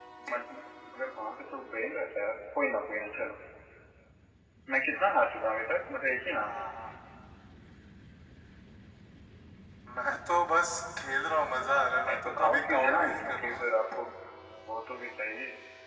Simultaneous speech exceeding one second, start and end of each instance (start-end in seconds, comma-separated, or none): 12.1-13.5